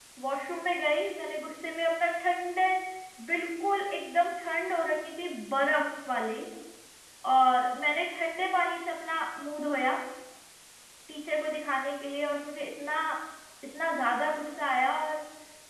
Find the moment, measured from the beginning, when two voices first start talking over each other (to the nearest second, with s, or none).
none